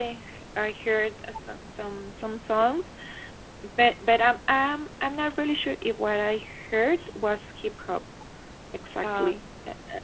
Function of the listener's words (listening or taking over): listening